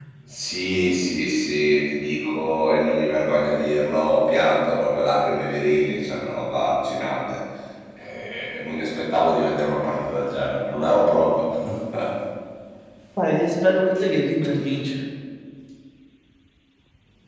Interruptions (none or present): none